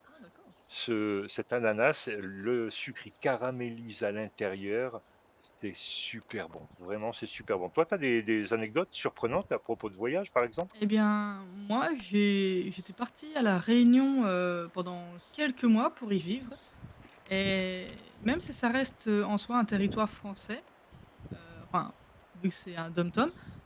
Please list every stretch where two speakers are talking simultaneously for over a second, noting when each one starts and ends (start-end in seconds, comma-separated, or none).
none